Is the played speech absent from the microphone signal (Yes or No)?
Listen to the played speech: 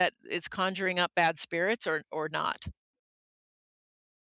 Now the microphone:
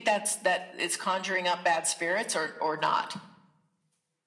No